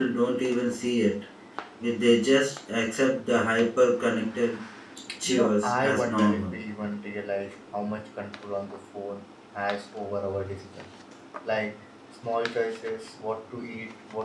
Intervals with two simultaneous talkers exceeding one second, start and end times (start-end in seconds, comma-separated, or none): 5.2-6.5